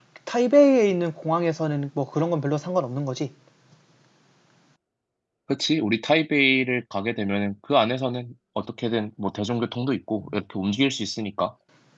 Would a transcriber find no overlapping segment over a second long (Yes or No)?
Yes